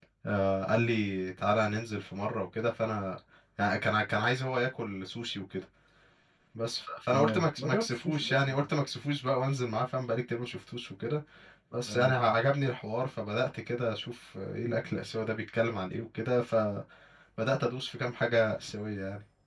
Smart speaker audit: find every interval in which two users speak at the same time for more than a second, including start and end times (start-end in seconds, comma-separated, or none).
7.1-8.5